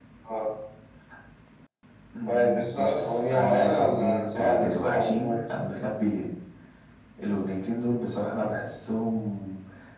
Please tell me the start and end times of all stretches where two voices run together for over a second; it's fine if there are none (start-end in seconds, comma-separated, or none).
2.3-5.5